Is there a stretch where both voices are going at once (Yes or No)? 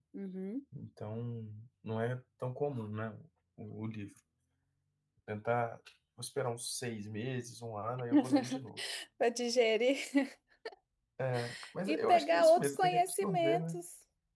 Yes